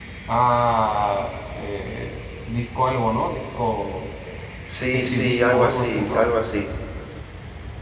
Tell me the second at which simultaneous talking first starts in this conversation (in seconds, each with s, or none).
4.9 s